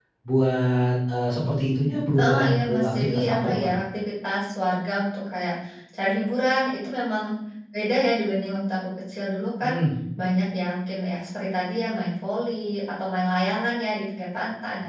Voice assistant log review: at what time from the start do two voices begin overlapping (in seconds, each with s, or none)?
2.2 s